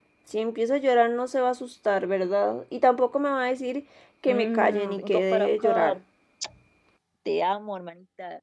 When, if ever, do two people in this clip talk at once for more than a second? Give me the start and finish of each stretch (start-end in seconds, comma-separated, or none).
4.3-6.0